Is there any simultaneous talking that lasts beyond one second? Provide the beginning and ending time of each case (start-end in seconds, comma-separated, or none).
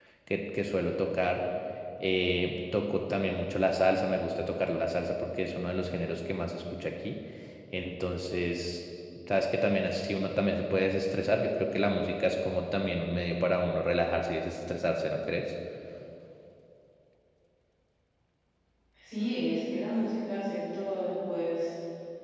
none